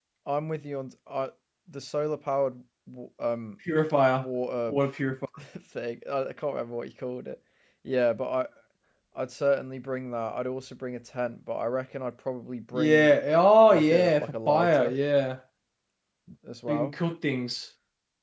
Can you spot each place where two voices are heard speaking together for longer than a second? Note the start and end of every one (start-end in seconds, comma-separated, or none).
13.7-14.9